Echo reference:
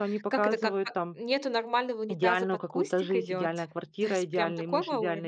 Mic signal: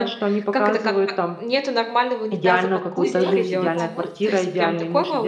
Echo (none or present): present